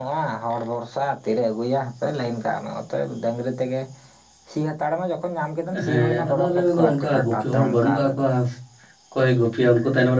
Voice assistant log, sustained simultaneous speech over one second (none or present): present